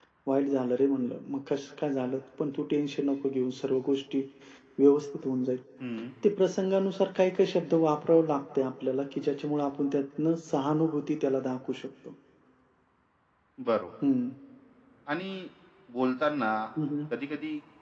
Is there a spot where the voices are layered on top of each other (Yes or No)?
No